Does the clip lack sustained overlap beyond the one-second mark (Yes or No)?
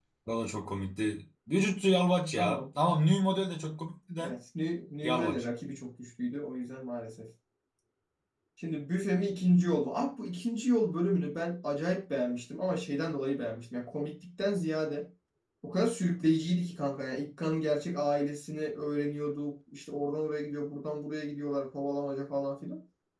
Yes